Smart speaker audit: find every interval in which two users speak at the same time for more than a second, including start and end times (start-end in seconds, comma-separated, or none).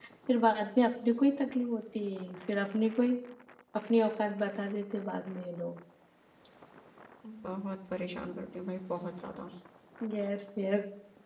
none